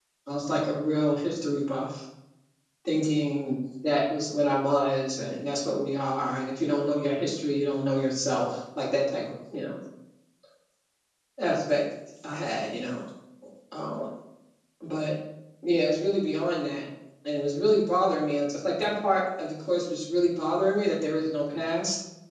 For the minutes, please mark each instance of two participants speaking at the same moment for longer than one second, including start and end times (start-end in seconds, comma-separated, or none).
none